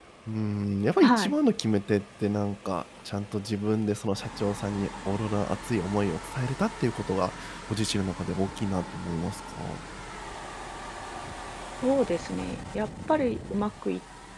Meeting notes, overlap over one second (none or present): none